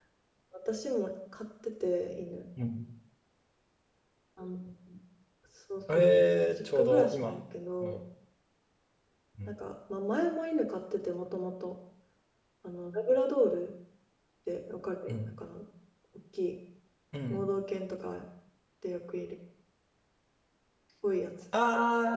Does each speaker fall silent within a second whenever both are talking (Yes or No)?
No